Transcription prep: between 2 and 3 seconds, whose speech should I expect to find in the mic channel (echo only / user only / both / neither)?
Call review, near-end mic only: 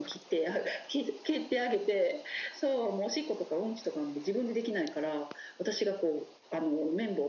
echo only